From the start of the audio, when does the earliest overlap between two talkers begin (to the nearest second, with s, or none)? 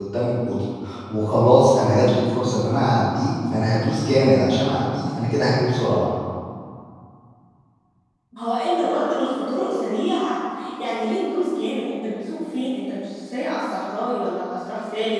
none